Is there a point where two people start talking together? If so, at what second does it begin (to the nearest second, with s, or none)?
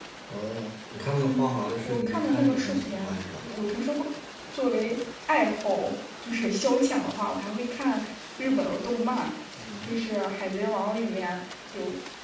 1 s